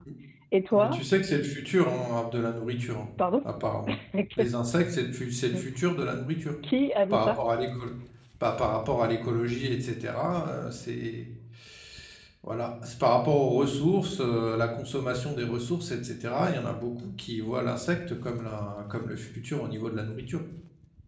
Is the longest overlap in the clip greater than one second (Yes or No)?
No